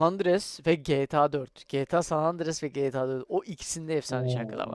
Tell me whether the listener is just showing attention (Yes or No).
No